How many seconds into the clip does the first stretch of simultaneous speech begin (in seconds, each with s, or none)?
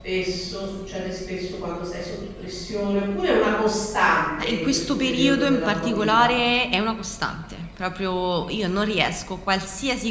4.4 s